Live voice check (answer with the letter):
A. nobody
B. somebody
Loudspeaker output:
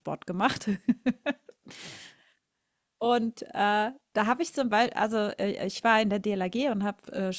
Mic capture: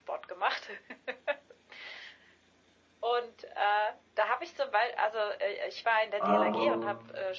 B